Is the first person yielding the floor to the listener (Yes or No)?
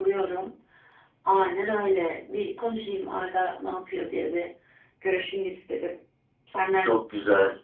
Yes